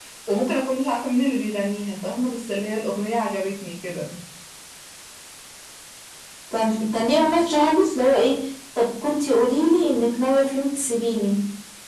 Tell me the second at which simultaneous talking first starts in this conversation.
none

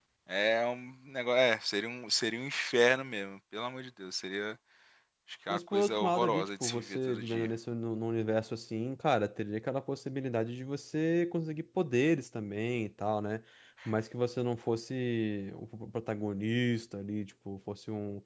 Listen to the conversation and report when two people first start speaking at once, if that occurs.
5.5 s

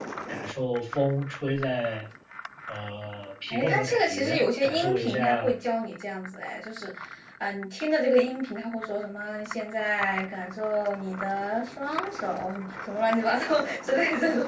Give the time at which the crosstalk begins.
3.5 s

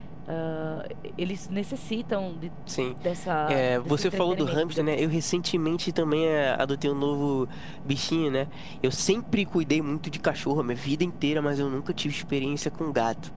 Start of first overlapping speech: 3.5 s

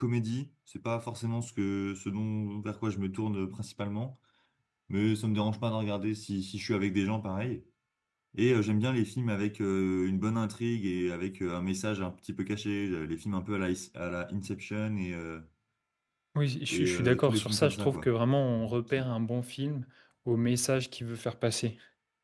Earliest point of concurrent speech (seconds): 16.7 s

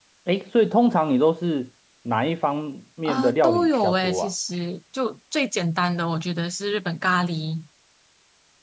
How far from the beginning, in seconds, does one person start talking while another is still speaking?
3.0 s

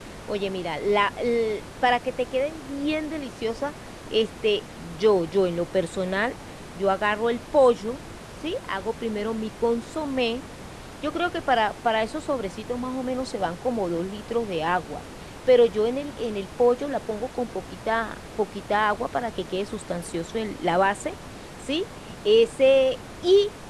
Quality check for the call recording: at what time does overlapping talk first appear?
none

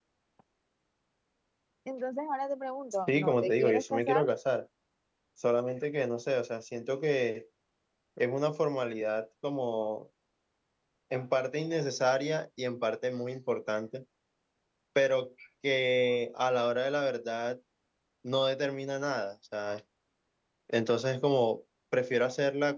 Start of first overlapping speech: 3.1 s

